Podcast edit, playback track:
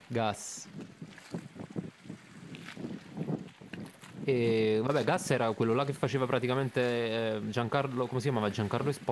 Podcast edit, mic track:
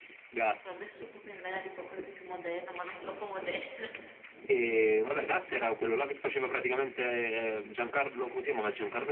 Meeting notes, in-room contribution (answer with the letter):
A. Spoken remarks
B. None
A